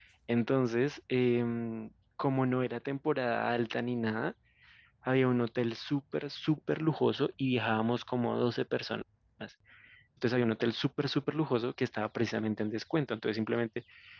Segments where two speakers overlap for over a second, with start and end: none

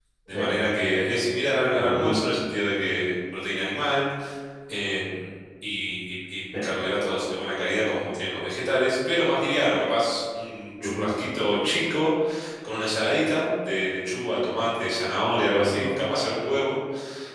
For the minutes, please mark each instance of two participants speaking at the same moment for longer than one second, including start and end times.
none

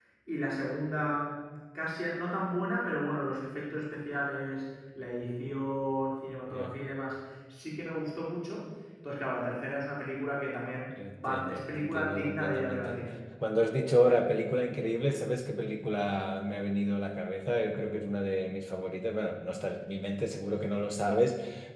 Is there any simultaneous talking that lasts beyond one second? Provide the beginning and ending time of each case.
11.1-13.0

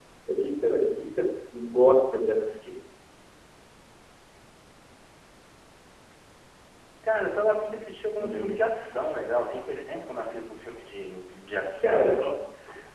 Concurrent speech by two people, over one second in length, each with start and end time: none

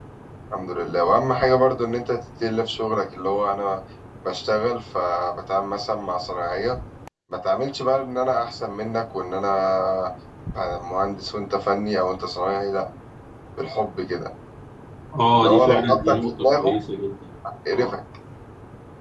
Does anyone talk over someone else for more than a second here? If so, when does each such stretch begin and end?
15.3-16.7

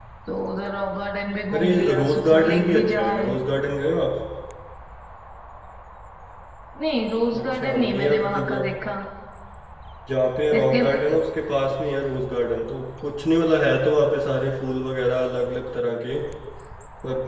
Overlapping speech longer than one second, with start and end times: 1.5-3.3, 7.4-8.7

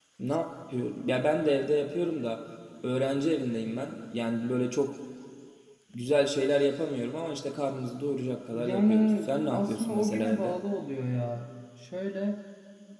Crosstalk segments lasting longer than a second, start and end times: 8.5-10.6

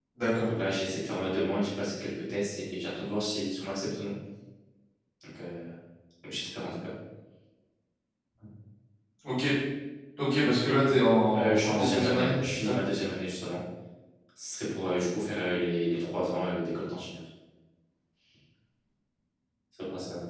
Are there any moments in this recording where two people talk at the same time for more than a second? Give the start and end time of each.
11.3-12.8

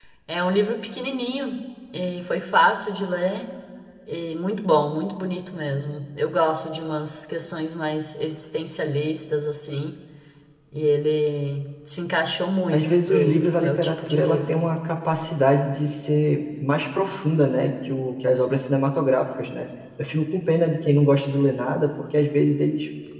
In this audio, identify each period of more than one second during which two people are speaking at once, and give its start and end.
12.7-14.7

